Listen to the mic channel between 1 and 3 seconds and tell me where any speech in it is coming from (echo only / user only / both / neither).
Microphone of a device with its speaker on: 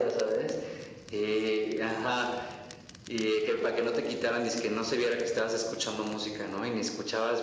echo only